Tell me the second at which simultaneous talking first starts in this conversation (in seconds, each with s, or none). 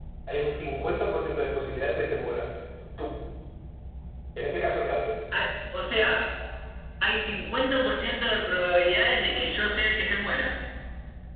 none